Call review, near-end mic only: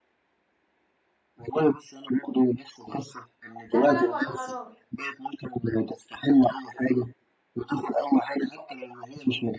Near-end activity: present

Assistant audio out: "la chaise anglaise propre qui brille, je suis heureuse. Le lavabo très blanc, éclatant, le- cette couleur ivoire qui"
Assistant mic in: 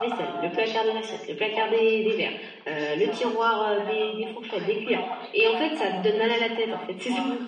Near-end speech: present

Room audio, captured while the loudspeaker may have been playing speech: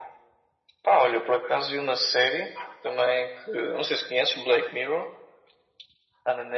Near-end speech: none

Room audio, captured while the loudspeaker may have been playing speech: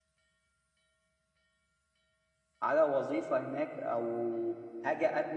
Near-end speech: present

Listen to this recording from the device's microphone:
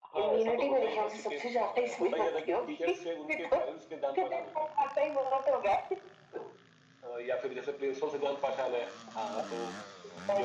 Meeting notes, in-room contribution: none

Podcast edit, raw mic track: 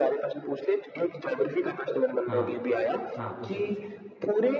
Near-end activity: present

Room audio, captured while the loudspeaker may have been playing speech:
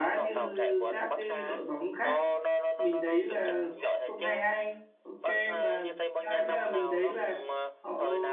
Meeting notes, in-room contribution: present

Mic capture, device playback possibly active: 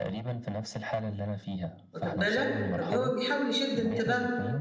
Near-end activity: present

